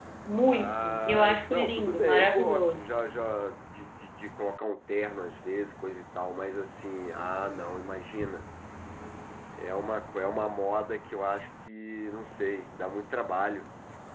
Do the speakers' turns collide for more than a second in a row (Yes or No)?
Yes